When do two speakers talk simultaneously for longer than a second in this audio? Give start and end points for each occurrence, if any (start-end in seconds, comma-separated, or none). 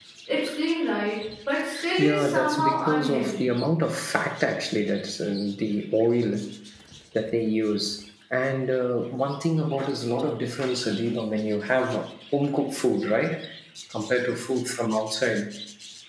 2.0-3.5